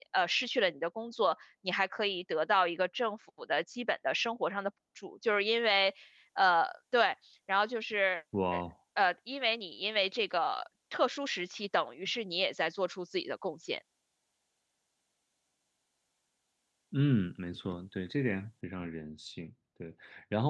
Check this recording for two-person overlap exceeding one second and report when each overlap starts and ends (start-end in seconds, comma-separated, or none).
none